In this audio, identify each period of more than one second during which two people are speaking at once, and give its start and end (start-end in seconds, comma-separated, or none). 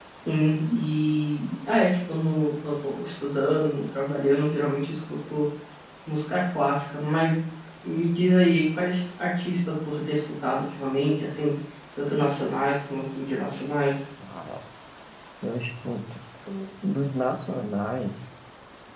none